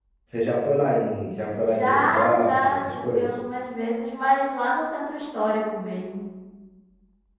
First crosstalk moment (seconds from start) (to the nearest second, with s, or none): 2 s